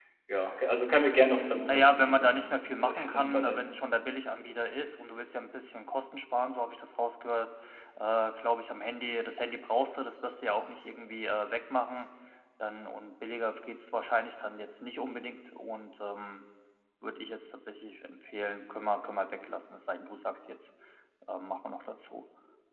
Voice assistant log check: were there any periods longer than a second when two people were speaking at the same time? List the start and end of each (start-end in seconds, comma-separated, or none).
1.7-3.7